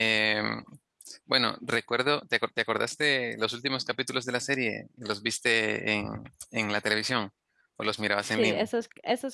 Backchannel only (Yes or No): No